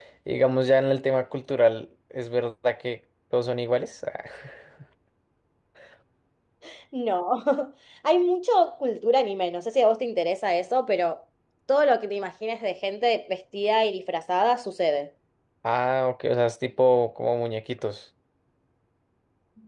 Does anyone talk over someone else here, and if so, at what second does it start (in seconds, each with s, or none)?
none